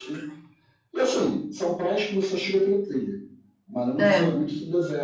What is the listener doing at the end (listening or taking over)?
listening